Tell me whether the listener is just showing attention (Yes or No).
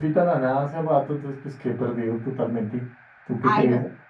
No